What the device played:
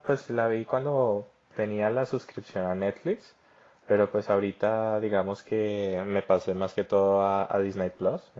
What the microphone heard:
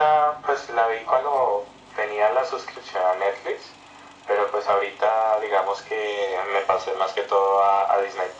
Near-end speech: none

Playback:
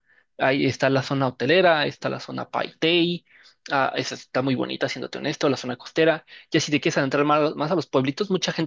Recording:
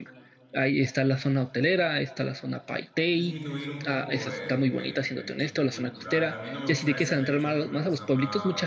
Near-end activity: present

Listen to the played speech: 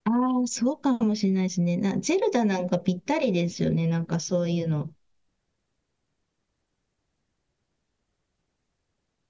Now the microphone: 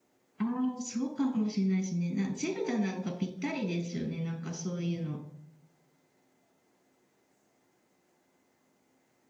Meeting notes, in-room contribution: none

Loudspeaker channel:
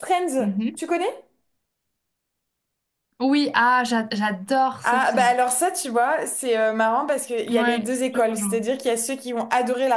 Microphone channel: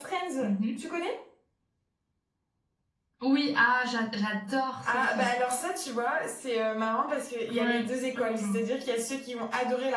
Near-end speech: none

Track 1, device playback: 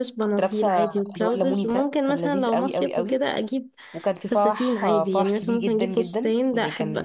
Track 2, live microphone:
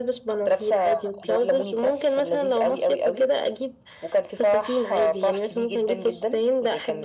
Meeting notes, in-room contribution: none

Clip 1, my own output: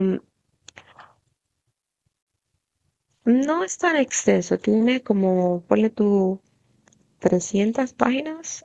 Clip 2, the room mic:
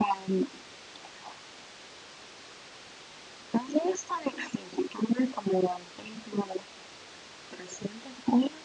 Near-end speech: none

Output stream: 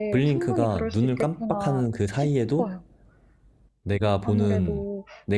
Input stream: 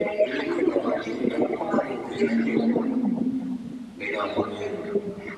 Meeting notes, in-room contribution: present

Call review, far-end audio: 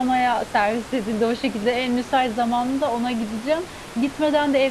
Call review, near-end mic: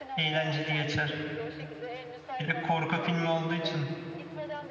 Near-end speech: present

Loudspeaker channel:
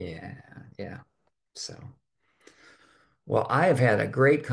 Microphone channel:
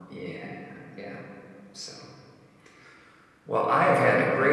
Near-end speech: none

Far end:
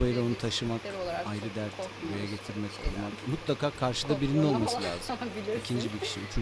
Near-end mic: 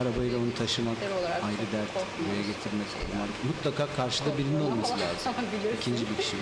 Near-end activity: none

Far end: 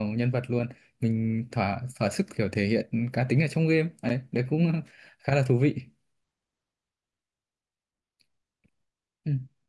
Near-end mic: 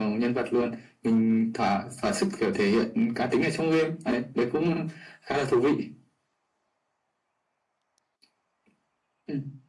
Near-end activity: none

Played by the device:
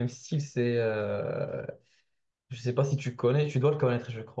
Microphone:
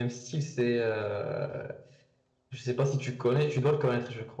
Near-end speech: none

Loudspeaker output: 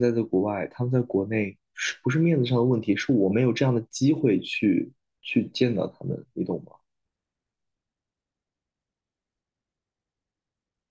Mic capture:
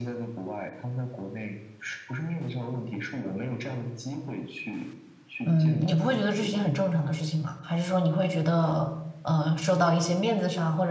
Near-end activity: present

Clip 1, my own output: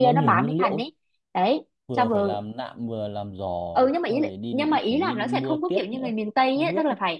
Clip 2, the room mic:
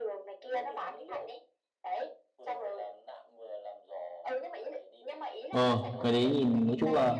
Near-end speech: present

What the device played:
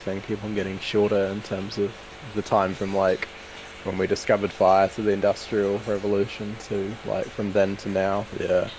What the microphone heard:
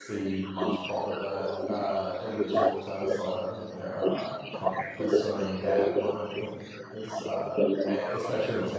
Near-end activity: present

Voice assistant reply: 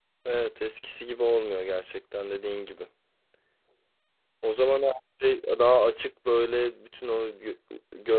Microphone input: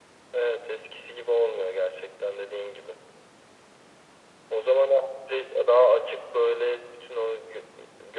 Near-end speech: none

